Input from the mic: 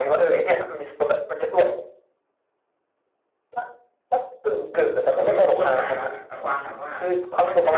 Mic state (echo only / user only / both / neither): both